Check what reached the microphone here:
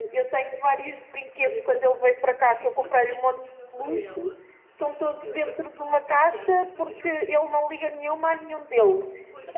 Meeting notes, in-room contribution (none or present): present